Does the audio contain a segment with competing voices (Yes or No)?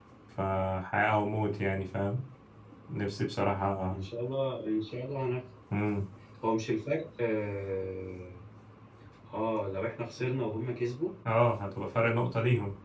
No